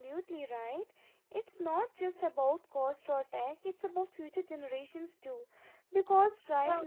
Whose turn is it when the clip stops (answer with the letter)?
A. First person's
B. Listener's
A